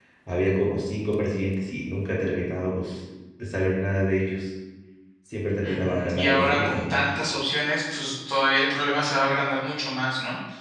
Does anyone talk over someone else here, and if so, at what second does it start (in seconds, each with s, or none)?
5.6 s